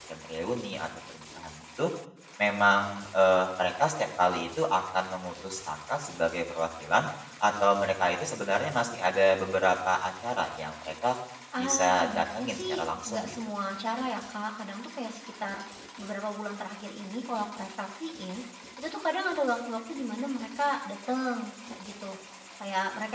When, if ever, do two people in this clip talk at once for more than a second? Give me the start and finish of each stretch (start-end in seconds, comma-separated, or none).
11.6-13.4